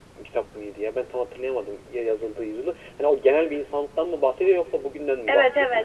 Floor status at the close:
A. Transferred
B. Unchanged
A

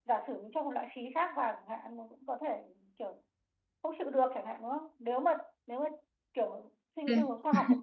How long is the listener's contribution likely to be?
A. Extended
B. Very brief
B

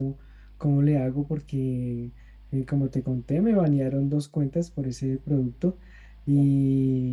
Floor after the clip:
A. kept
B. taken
A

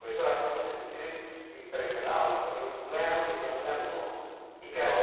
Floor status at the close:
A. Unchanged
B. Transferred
A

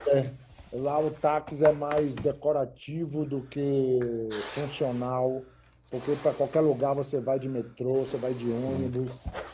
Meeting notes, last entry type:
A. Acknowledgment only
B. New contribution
A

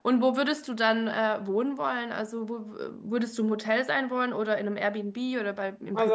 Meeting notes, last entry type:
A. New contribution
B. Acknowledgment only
A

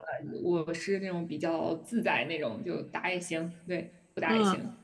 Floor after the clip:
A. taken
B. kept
A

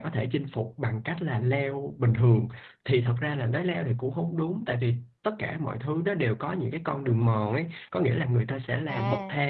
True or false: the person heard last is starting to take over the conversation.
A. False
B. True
A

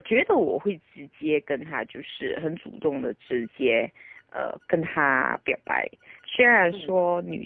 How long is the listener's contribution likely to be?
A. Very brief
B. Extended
A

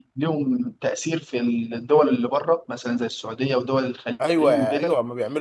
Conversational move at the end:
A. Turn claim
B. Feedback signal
A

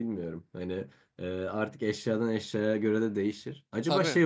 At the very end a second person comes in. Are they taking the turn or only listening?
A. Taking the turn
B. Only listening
B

